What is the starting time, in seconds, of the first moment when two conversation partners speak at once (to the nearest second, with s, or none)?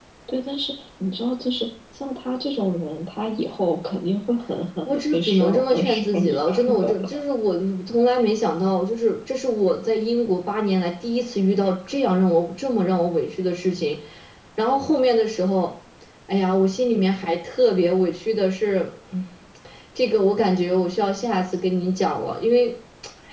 5 s